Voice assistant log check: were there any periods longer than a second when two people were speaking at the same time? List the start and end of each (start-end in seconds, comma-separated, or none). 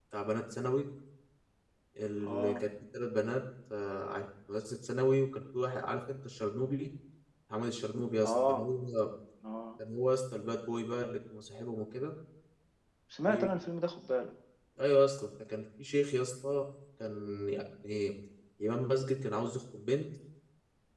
none